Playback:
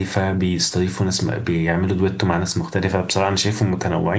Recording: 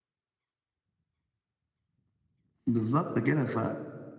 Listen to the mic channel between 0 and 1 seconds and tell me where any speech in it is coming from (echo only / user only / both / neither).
neither